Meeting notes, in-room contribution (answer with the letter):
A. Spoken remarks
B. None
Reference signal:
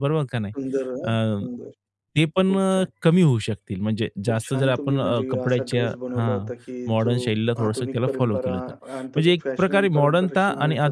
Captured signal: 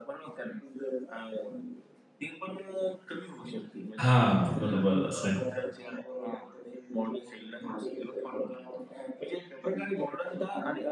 A